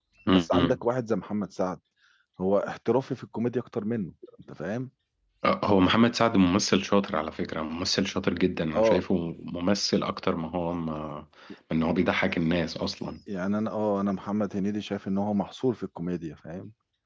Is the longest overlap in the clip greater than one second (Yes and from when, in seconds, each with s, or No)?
No